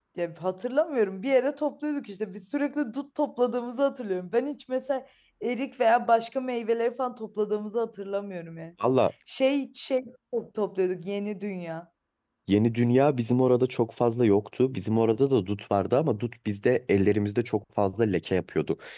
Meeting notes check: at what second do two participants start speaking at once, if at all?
none

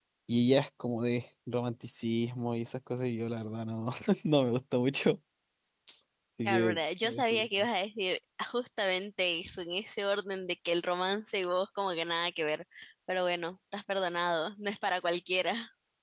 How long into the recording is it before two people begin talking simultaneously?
6 s

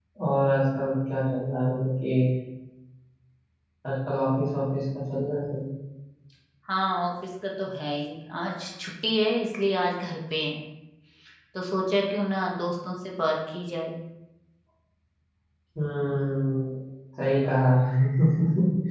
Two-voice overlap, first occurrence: none

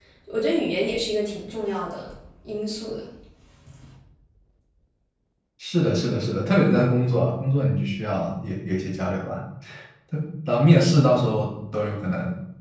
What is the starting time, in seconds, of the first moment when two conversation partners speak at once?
none

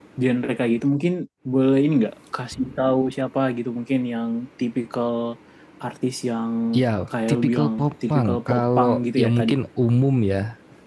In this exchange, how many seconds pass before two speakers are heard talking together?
7 s

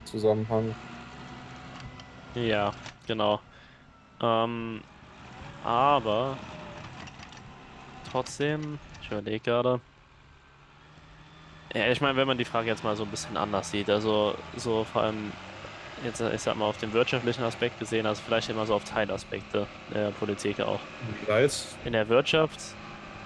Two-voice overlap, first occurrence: none

